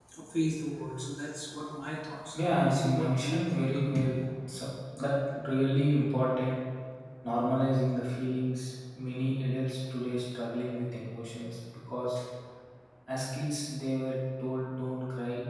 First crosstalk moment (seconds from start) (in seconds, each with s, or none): 2.3 s